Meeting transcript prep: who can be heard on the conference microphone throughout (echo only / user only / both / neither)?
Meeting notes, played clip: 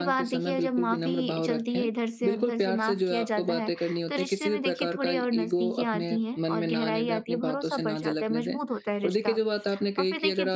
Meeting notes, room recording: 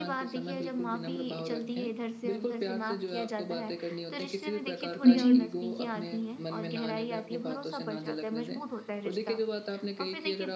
both